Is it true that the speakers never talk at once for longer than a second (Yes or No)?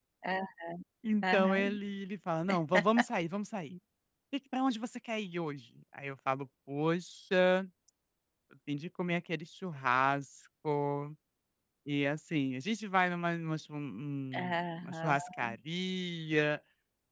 No